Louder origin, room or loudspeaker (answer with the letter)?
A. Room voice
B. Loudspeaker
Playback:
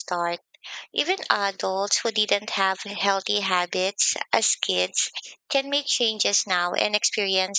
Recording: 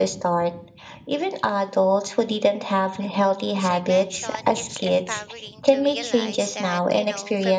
B